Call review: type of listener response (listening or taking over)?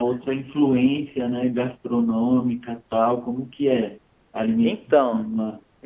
taking over